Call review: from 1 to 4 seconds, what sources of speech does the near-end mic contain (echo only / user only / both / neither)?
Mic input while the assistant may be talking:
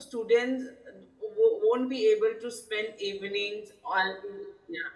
user only